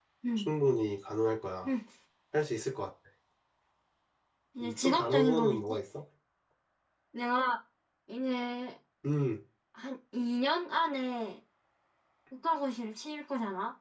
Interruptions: present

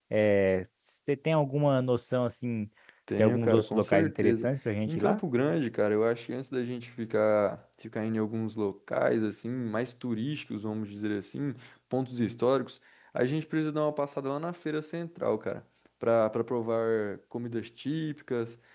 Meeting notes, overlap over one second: present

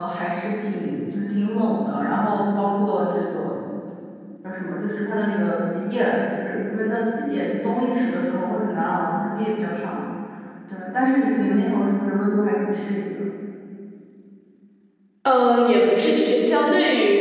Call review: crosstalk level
none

